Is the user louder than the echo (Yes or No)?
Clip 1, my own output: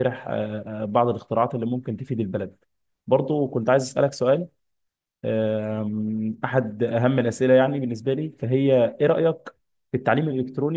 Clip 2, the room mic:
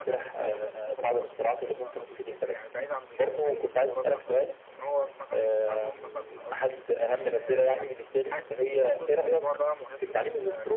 No